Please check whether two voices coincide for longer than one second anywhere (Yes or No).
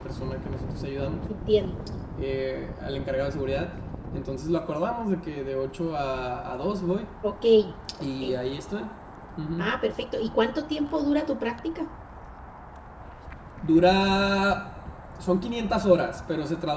No